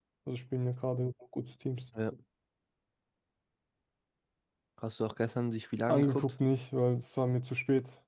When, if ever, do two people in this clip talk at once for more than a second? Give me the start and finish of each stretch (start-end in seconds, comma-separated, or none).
none